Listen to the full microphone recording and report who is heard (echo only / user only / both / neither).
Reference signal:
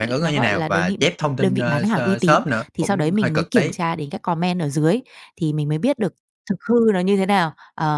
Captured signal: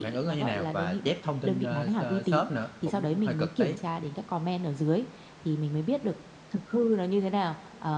echo only